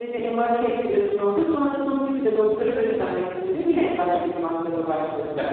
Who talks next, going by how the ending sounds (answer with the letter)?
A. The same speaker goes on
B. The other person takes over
B